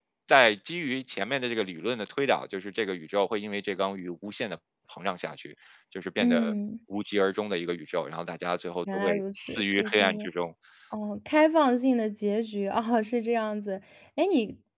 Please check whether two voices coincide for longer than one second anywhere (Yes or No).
Yes